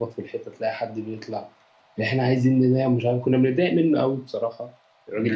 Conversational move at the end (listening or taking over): taking over